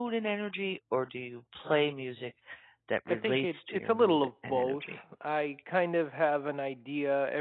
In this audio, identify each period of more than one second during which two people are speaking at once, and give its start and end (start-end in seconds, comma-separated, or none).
3.1-5.0